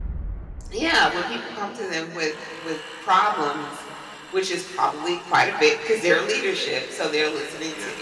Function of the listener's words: listening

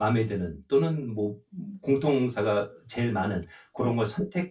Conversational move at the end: listening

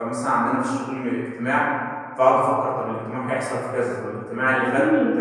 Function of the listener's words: listening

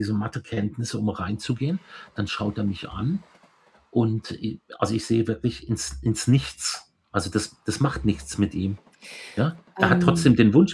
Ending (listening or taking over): listening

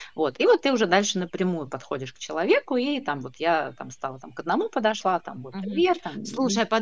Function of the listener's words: taking over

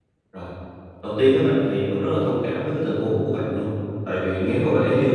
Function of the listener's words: listening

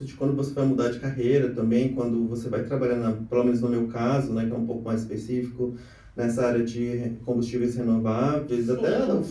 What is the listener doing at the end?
listening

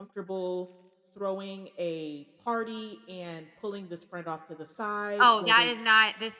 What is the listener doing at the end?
taking over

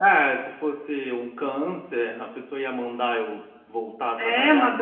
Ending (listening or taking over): taking over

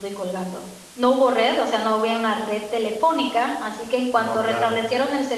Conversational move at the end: listening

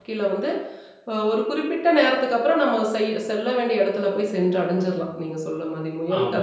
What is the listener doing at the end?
taking over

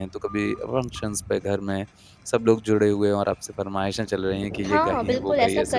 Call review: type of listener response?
taking over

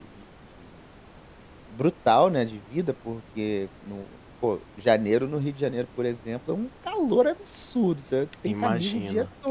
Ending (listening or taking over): listening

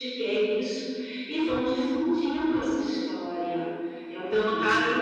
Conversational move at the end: taking over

